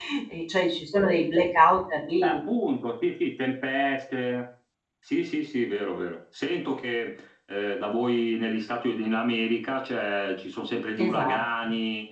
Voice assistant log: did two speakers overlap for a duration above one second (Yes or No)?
No